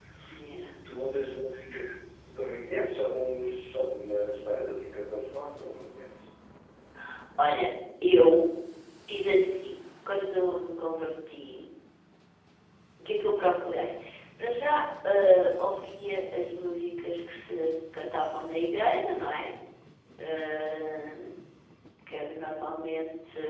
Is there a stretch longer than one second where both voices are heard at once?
No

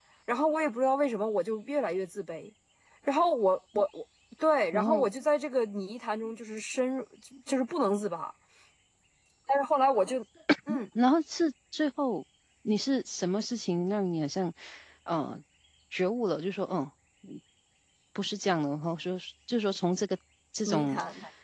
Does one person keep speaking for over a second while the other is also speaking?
No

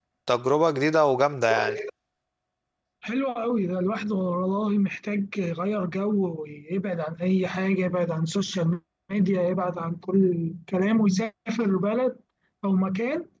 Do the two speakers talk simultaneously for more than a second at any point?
No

